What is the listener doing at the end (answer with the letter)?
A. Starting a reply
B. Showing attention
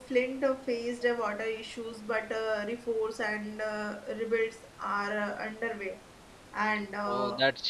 A